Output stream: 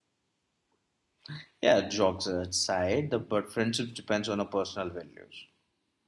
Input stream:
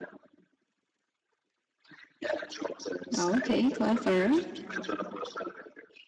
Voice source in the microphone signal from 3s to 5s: both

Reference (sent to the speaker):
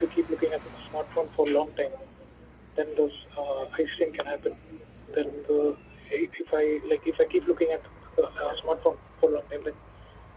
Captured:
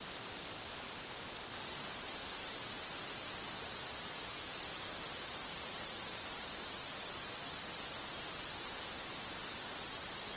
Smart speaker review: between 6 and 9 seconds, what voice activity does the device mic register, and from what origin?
neither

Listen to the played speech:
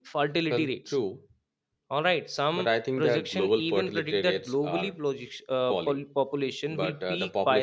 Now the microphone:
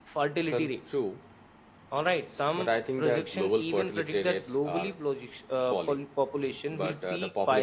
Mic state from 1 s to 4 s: echo only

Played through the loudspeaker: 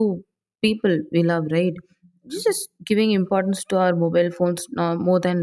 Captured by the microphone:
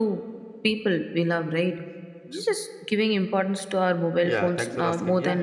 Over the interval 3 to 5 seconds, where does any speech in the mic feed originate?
both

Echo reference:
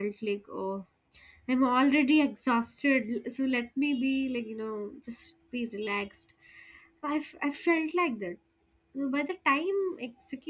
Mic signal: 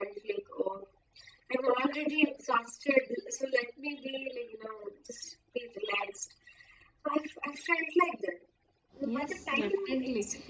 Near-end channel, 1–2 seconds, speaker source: echo only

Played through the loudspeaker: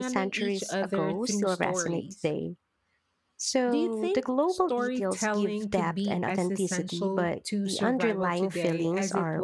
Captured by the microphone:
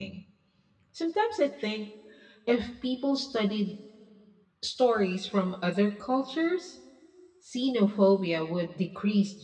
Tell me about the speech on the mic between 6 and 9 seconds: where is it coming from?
user only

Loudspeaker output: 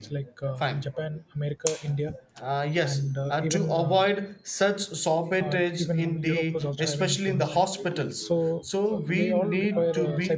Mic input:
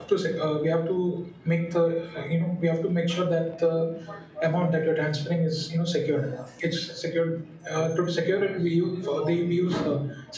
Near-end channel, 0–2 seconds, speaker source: user only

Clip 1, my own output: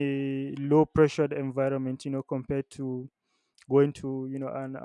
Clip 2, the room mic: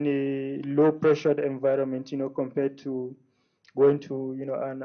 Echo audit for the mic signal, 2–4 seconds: echo only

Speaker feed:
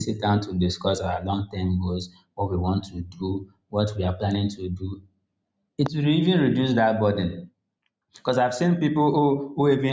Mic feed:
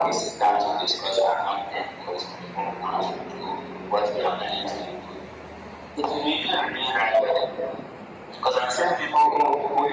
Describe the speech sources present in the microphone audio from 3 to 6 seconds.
echo only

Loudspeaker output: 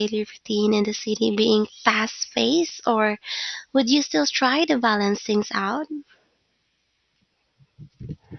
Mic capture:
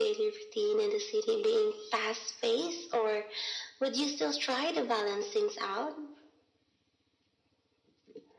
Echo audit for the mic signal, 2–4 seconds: echo only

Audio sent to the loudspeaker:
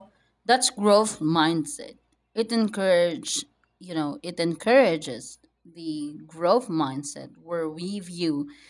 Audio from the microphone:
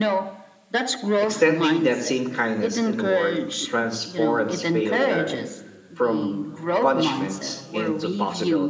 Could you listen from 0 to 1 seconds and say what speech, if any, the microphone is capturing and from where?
echo only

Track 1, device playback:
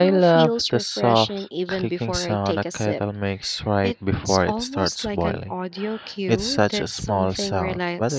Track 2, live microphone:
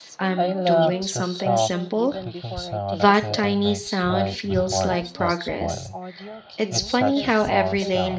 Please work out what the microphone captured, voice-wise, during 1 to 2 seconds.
both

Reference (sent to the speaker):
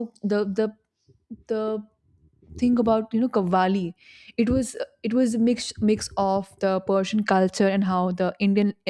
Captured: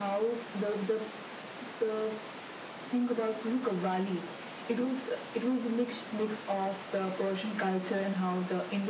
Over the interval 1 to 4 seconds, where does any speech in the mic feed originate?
echo only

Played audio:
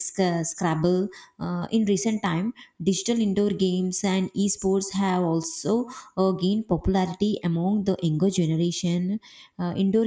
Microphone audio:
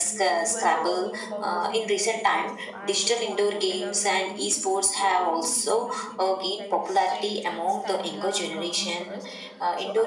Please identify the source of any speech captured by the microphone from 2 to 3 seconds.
both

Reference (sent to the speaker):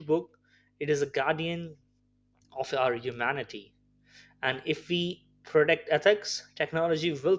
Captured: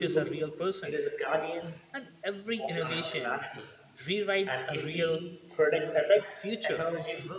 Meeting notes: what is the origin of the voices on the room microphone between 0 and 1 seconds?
both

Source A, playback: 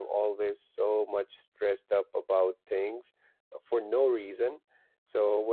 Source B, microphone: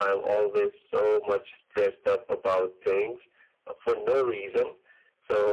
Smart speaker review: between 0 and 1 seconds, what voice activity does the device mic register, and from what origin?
echo only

